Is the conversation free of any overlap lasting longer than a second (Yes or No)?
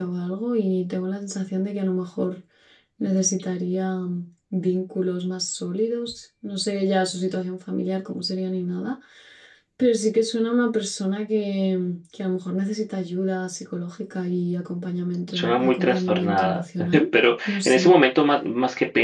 No